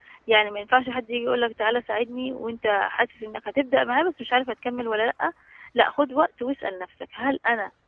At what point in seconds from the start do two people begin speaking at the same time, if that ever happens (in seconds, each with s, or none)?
none